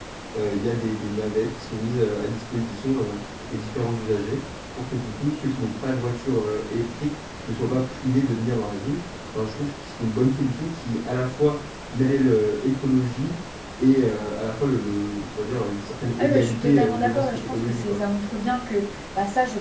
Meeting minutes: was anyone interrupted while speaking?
Yes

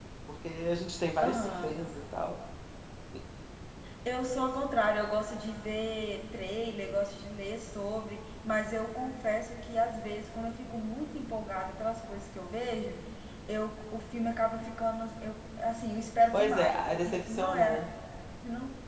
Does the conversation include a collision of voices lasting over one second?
Yes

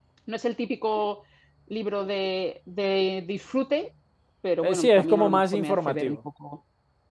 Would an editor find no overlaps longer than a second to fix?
No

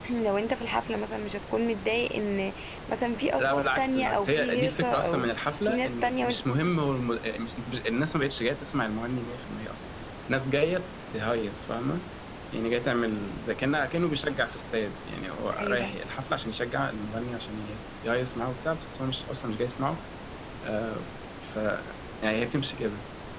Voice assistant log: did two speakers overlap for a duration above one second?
Yes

